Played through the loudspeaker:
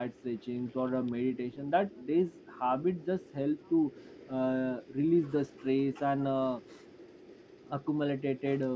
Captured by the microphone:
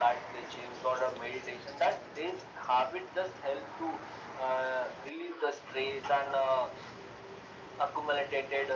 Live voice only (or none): none